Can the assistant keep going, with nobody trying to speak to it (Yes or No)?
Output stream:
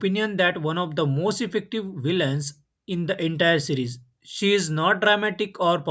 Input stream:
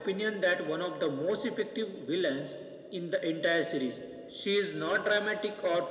Yes